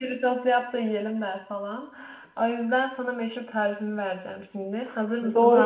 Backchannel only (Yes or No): No